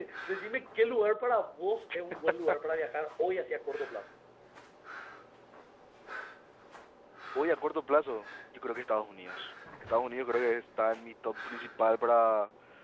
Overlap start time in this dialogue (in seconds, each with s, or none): none